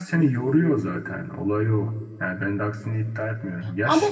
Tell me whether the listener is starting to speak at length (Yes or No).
No